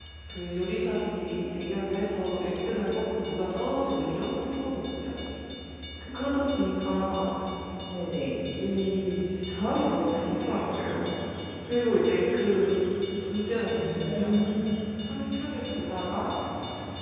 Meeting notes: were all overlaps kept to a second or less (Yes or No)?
Yes